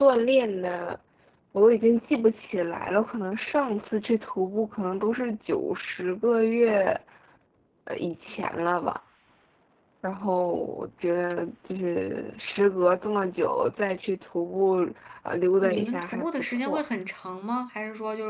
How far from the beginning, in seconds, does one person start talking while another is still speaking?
16 s

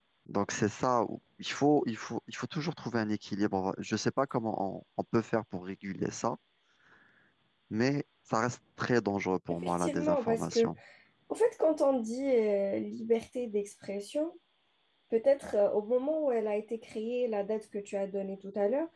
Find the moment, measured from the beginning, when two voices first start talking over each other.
9 s

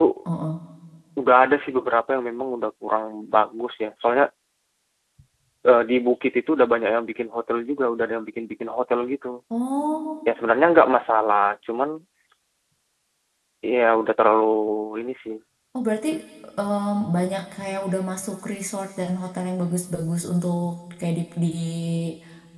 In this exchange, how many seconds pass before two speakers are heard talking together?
none

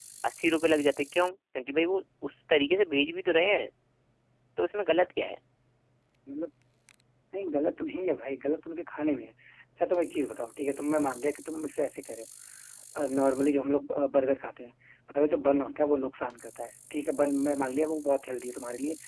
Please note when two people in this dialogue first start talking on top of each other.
none

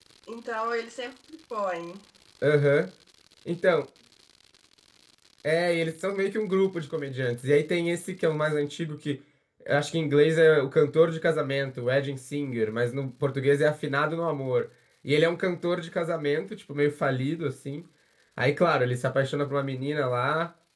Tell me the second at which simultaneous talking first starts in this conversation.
none

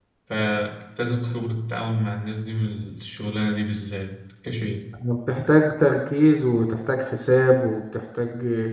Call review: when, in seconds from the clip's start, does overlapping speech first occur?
none

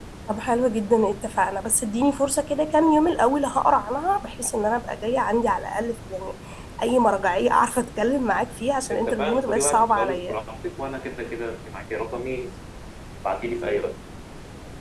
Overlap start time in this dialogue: 9 s

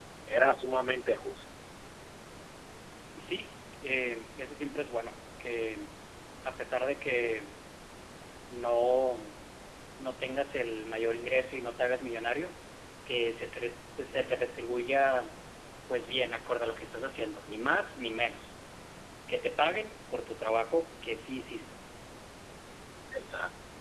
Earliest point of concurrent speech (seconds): none

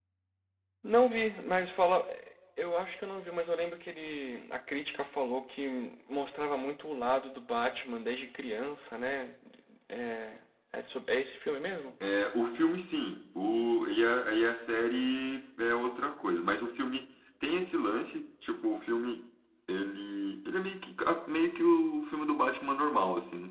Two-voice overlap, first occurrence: none

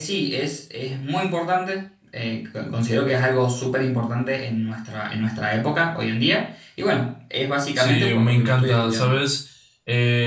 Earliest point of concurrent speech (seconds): 8 s

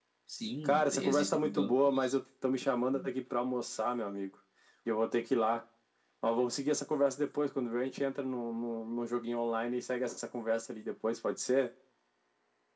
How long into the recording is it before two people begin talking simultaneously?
1 s

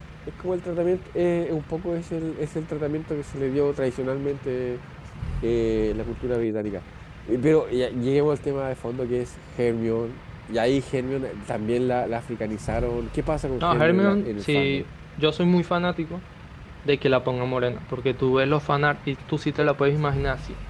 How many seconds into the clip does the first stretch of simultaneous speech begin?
14 s

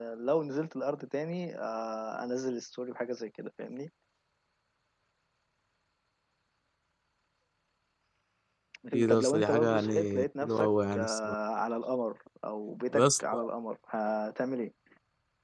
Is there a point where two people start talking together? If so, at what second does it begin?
9 s

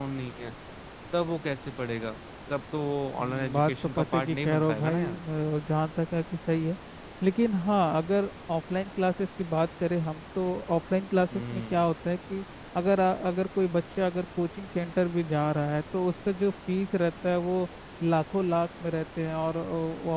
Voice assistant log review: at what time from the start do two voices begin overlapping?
3 s

